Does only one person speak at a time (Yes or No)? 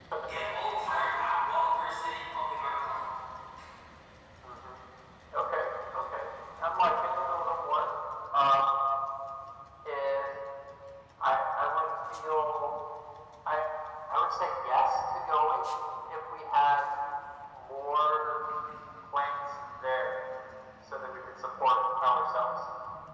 Yes